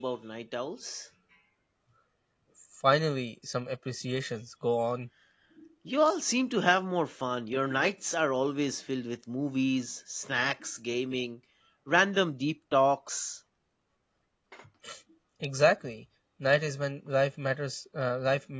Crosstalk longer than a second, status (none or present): none